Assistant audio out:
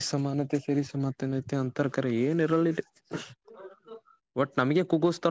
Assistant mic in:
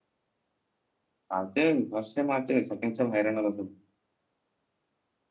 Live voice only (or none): ಆಗತಿ ಫಸ್ಟ್ ಸಟೈಮ ಆ ಸೆಂಡ್ ಸೈಮ ಹೈರಾಣ ಬು.